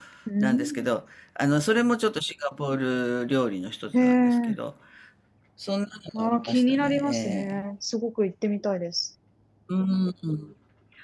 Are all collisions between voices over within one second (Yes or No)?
No